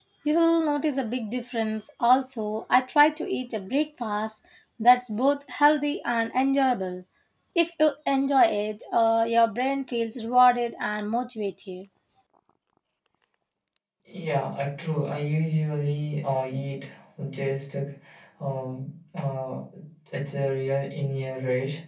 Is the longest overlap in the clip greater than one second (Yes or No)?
No